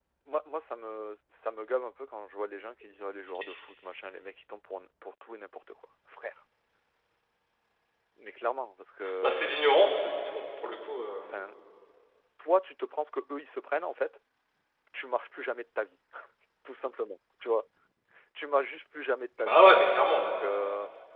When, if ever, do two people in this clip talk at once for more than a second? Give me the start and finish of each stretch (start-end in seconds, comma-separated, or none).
none